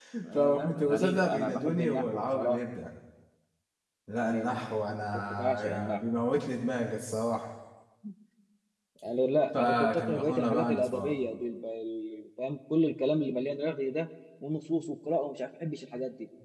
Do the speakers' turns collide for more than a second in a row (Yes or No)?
Yes